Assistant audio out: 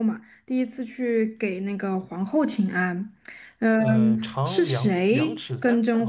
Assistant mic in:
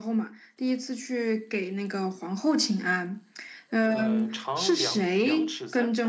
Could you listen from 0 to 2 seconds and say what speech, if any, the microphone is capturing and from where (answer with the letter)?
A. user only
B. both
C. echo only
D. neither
C